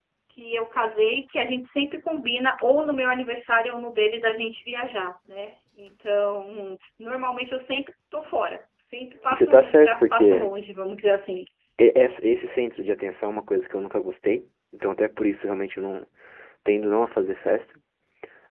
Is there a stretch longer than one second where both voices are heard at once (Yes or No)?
Yes